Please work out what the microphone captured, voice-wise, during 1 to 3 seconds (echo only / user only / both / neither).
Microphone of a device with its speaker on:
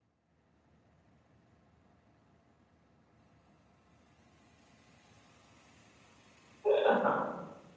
neither